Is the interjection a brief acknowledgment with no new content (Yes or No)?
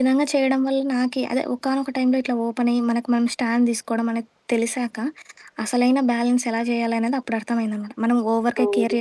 Yes